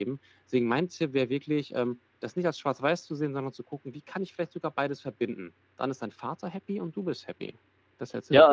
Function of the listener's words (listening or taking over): taking over